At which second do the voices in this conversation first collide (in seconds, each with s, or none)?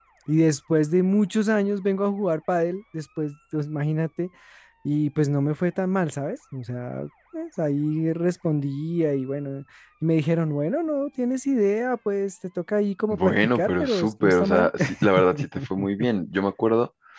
13.1 s